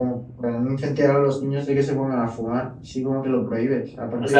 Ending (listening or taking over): taking over